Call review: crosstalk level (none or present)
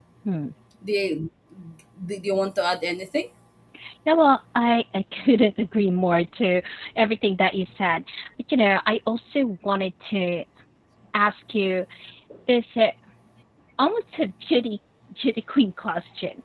none